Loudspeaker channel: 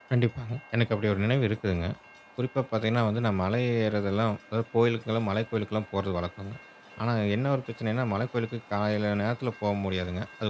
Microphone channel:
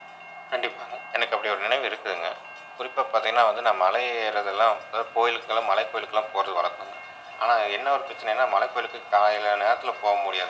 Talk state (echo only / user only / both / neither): echo only